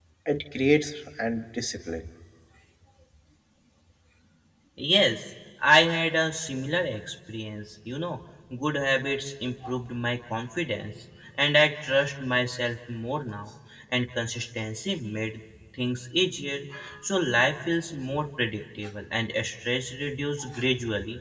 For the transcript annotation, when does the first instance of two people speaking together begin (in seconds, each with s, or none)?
none